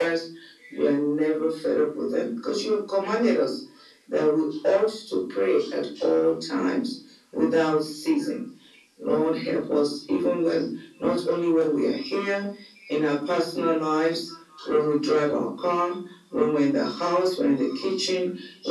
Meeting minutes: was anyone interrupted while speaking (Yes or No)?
No